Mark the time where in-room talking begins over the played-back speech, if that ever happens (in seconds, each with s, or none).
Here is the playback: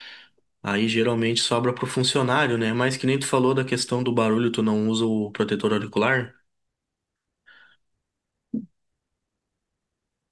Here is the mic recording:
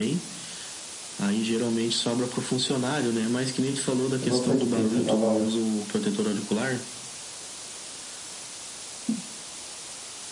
4.2 s